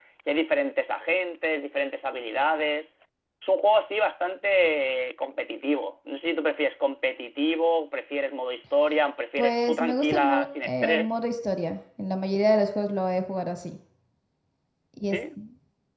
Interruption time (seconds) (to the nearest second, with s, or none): 9 s